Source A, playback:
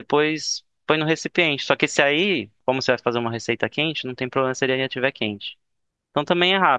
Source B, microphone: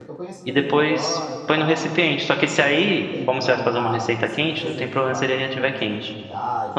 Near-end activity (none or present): present